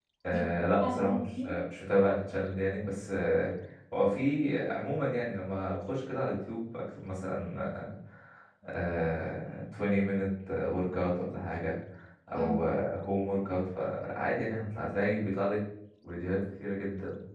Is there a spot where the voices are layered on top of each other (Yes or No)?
Yes